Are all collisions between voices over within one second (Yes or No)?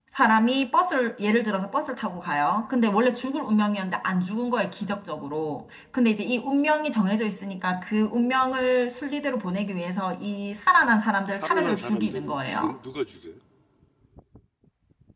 No